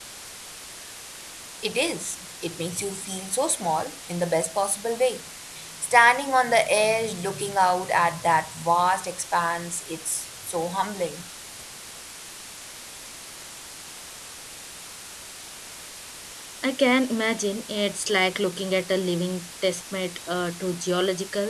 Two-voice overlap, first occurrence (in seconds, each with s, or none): none